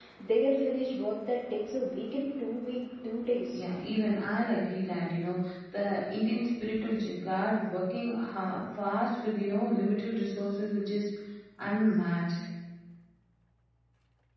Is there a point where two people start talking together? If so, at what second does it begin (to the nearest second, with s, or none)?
none